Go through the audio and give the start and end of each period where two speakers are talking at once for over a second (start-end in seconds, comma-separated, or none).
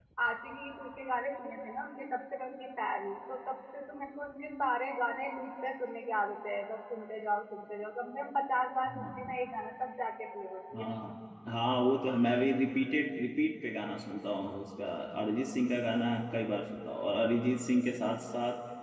none